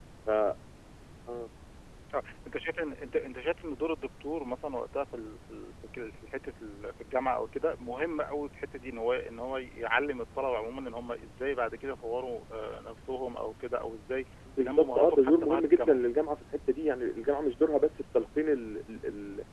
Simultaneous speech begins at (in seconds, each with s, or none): 14.5 s